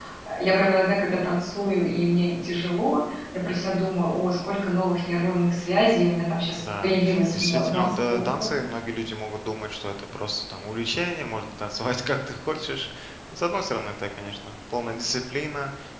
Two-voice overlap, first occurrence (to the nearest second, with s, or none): 7 s